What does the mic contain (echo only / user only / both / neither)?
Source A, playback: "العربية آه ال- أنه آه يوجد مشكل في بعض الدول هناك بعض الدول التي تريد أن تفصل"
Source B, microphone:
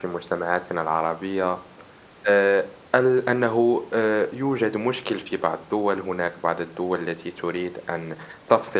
echo only